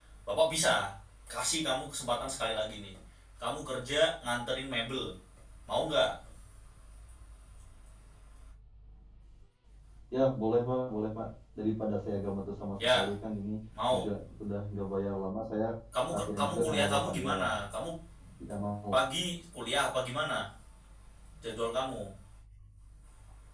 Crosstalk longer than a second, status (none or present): present